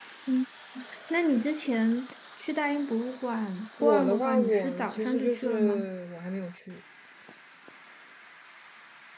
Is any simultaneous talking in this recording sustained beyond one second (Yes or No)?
Yes